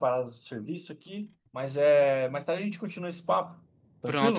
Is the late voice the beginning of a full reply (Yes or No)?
Yes